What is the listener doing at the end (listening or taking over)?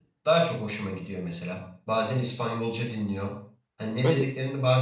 listening